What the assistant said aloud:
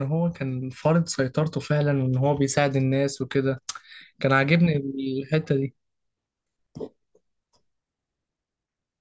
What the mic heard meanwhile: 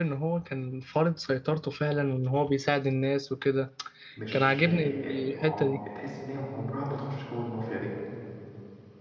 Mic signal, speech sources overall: both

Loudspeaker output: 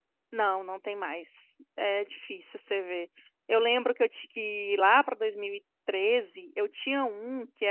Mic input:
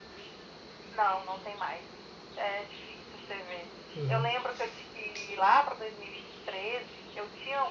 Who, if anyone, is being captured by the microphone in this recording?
both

